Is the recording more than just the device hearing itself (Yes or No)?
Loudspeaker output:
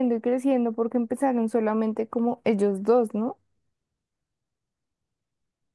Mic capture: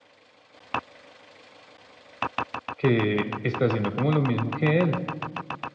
Yes